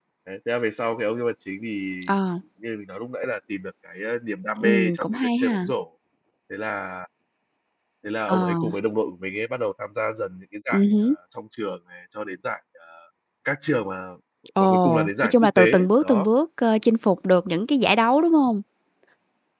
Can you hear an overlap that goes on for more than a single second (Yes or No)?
Yes